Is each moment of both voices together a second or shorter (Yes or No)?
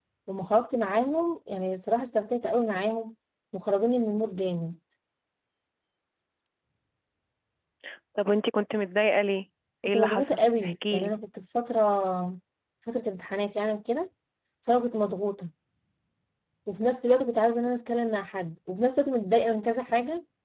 No